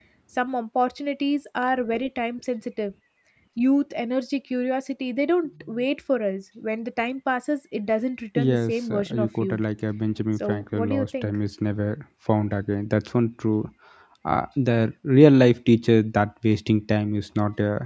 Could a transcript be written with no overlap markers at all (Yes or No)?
No